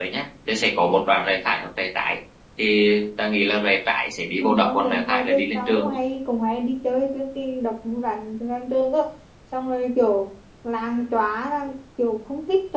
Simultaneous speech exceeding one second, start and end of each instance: 4.4-5.9

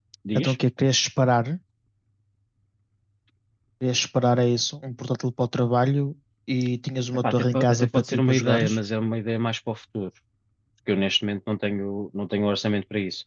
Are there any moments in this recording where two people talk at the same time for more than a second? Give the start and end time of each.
7.1-8.8

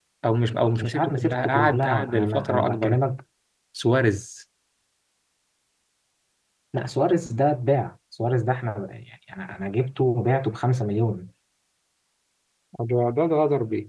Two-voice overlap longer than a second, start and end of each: 0.8-3.0

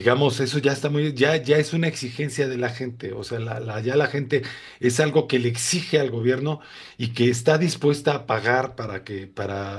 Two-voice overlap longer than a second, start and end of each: none

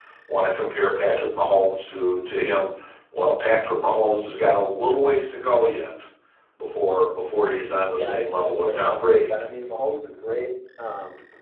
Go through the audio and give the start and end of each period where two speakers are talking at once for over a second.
7.9-9.3

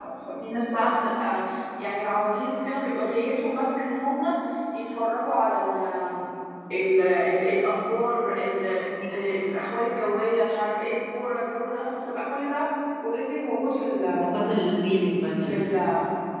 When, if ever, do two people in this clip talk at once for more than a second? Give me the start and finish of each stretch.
none

